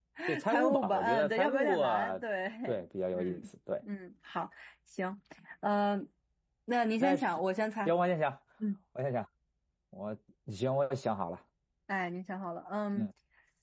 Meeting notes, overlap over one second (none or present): present